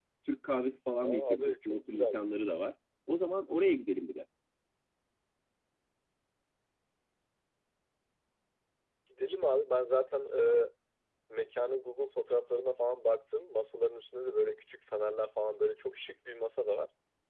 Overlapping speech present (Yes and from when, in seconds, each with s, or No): Yes, from 1.0 s